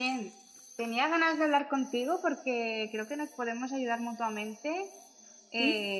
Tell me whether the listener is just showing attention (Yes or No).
Yes